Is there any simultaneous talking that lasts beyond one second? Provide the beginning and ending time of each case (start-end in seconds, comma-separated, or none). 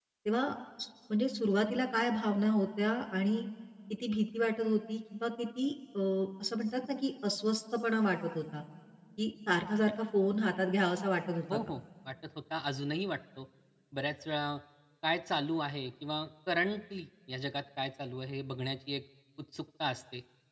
none